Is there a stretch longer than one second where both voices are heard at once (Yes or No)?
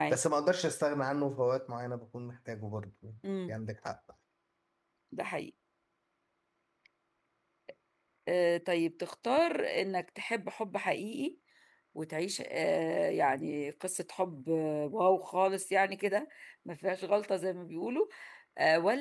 No